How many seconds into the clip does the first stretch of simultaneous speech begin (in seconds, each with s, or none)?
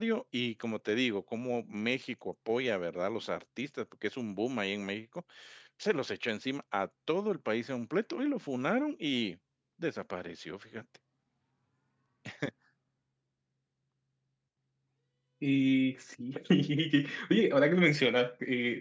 none